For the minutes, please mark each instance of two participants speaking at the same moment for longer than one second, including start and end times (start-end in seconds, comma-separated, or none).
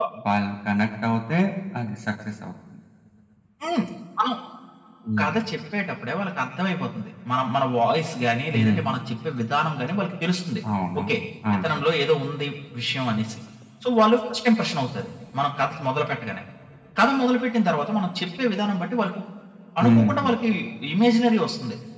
none